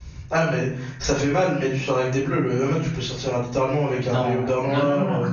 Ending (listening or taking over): taking over